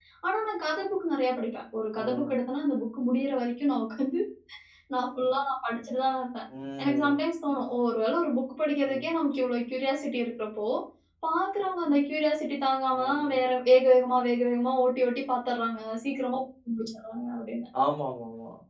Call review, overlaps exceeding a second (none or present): none